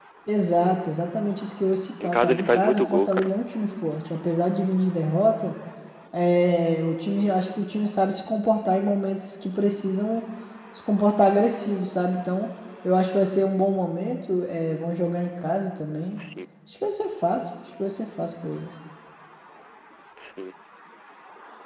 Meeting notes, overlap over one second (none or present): present